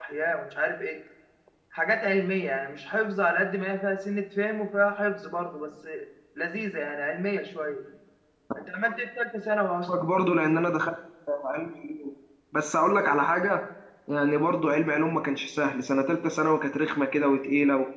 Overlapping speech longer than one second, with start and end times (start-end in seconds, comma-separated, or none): none